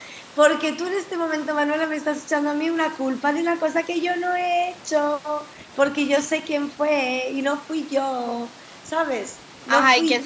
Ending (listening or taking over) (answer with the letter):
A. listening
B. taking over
B